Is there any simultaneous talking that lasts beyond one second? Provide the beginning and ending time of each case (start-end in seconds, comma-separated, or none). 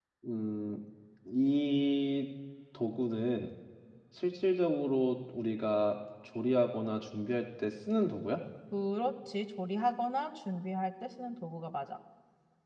none